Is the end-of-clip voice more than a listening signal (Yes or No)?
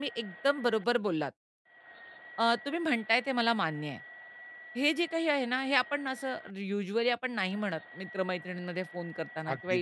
No